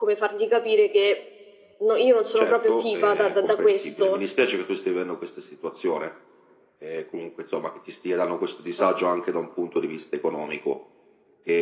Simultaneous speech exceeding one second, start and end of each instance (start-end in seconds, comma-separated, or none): 2.4-4.2